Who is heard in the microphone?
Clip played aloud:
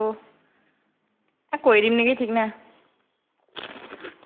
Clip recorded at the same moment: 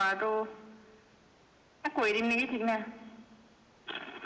echo only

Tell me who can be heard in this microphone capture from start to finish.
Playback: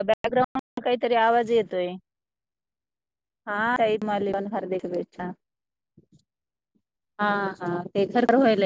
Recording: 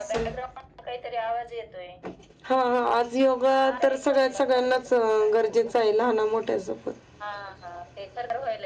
both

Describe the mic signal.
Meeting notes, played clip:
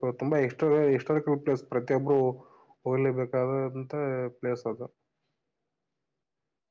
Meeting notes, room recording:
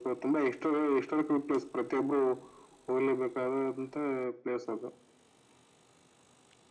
echo only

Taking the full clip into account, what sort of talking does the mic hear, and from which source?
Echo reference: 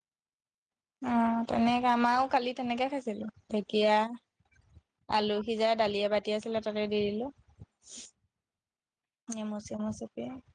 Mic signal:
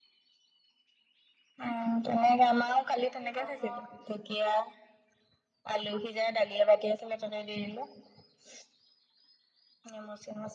both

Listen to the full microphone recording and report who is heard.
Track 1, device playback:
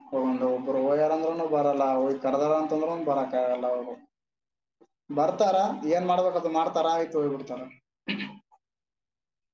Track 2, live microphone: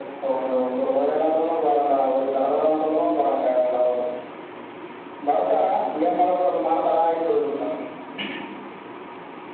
echo only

